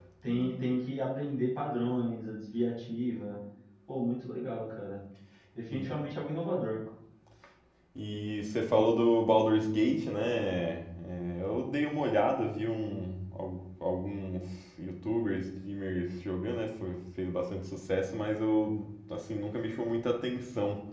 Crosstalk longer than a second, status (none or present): none